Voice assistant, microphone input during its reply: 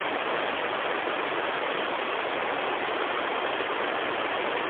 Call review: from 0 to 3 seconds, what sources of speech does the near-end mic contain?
neither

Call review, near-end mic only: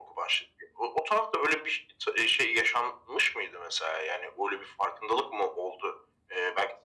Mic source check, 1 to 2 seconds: echo only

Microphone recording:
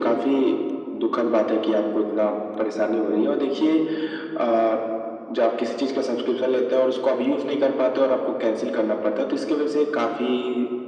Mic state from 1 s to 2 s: echo only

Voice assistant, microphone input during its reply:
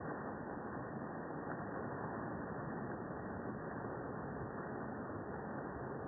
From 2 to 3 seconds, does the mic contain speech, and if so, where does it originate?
neither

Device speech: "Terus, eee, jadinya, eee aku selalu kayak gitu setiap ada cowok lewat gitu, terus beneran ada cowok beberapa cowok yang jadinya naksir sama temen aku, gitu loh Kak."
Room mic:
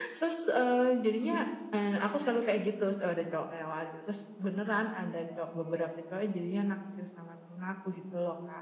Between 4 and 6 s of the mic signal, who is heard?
echo only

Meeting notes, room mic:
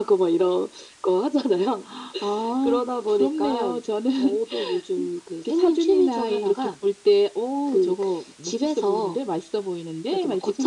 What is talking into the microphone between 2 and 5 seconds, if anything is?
echo only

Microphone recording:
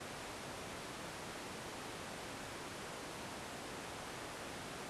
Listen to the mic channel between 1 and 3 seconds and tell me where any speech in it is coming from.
neither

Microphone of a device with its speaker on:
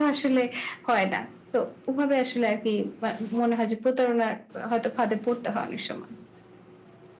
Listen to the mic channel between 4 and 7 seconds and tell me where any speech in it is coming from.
echo only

